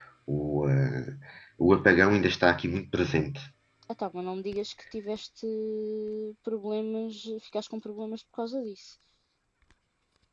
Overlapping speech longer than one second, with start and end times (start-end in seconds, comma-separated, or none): none